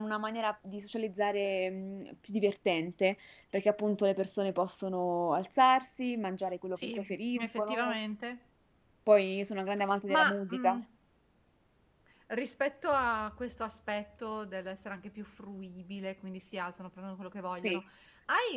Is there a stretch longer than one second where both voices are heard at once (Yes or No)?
Yes